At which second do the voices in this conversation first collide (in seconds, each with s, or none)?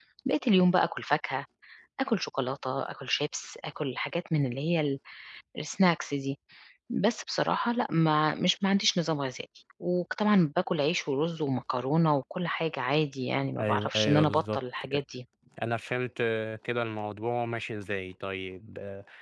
13.6 s